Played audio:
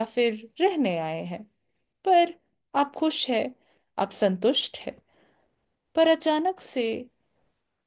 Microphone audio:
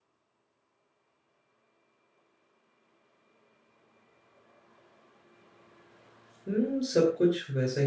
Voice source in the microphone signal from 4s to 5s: neither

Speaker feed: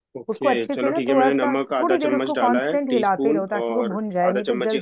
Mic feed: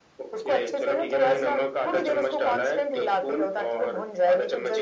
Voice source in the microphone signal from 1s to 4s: echo only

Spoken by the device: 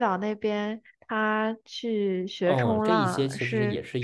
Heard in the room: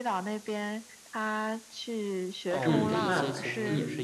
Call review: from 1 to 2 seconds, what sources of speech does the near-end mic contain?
echo only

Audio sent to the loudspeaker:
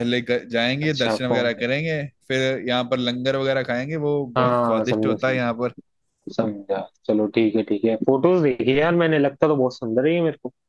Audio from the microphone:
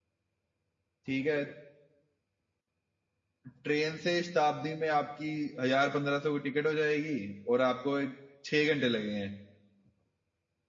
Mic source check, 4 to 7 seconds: user only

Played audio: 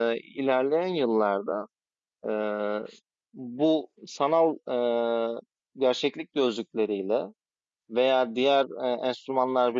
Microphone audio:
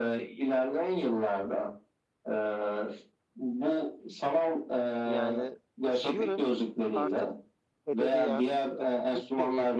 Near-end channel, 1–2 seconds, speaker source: echo only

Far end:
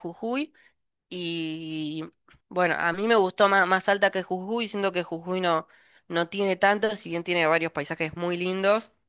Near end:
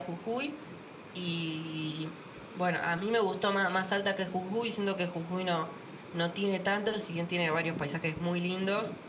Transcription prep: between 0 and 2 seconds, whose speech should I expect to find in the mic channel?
echo only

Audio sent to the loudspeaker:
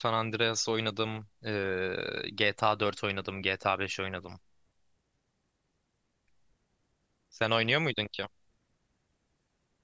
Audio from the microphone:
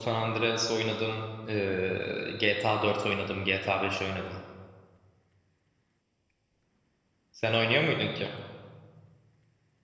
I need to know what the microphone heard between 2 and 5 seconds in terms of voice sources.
echo only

